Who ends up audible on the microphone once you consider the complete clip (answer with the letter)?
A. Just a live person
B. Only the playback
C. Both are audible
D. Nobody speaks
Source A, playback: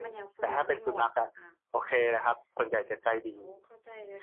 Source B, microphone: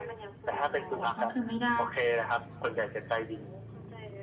C